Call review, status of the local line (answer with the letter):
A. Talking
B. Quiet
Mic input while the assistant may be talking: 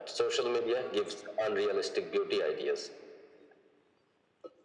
B